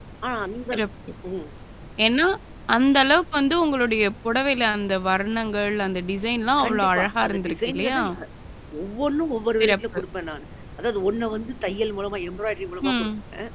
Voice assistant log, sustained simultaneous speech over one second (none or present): present